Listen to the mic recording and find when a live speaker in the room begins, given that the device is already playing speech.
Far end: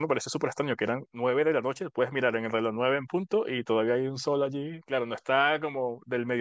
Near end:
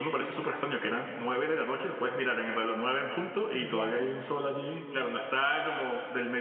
4 s

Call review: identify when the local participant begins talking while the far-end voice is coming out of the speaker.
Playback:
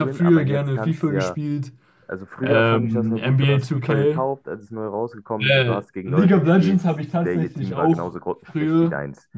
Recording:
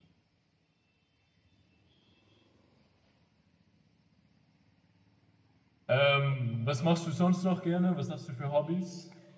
6 s

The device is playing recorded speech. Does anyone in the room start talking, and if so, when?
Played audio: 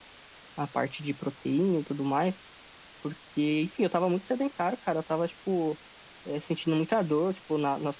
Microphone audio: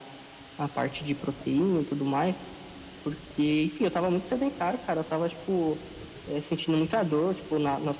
none

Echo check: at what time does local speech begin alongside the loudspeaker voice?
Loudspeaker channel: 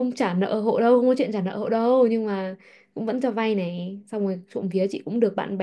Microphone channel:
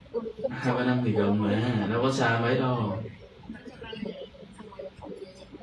0 s

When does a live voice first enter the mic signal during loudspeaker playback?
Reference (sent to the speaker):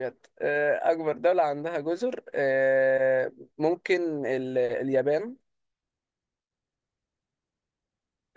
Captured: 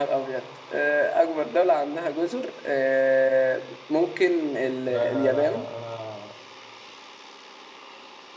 5 s

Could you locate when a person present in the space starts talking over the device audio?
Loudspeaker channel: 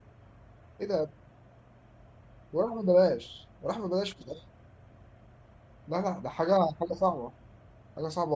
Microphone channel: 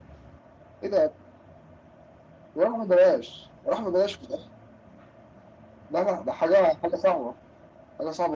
none

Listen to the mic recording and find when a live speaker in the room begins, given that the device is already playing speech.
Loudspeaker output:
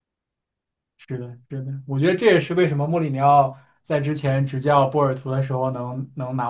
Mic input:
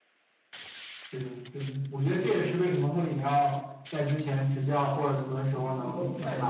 5 s

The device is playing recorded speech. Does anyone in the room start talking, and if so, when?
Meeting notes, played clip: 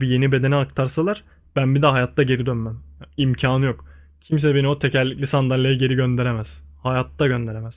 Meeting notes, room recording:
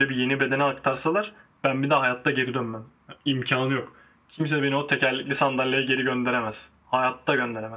none

